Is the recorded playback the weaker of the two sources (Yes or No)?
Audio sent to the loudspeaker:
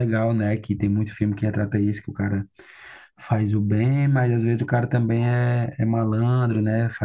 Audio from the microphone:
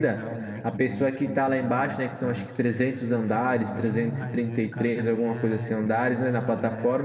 Yes